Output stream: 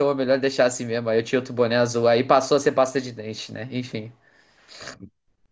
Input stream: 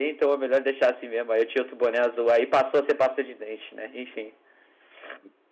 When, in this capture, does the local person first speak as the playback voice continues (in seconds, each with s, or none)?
none